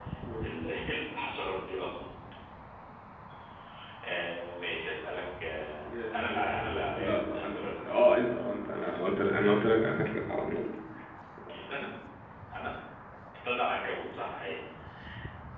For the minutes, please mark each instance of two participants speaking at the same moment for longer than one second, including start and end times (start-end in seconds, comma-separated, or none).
6.1-8.1